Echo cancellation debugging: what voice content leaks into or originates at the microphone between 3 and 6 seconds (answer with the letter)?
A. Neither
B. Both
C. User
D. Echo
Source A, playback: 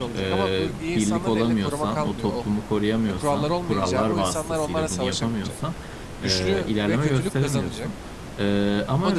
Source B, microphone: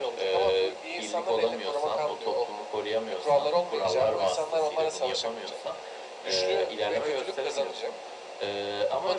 D